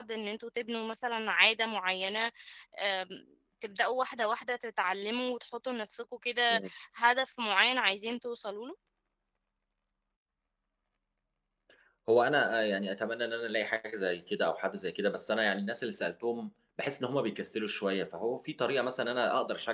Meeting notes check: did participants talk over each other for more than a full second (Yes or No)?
No